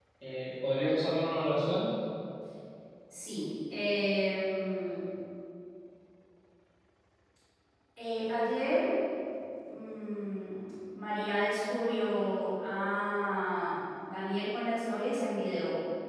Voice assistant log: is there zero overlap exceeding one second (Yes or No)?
Yes